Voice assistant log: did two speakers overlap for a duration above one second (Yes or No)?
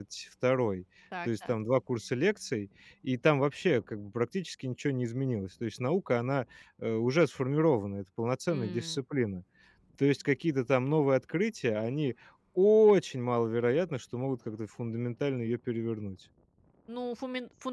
No